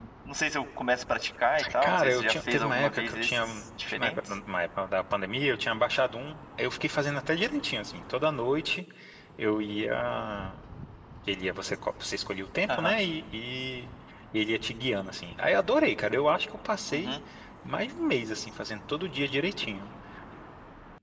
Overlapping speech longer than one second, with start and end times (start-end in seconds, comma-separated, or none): 1.8-4.4